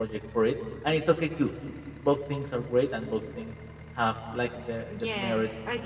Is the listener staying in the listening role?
No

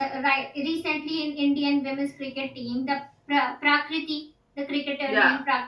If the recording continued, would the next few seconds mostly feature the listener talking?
No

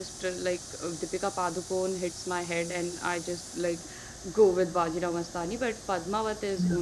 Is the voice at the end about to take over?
No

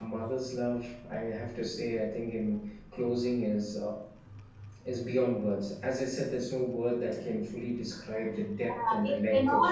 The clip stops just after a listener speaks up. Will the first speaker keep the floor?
No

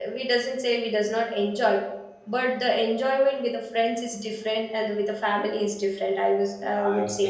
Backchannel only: No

